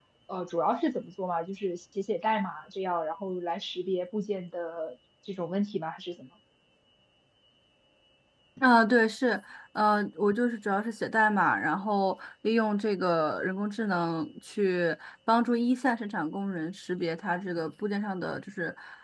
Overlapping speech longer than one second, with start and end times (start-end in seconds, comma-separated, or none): none